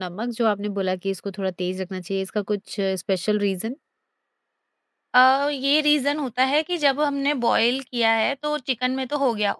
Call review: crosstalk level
none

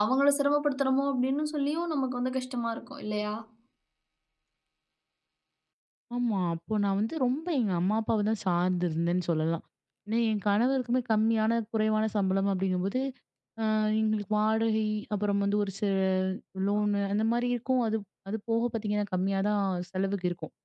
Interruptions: none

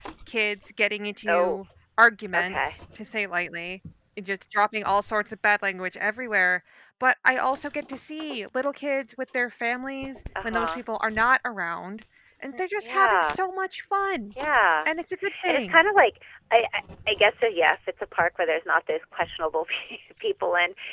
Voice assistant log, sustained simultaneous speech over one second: none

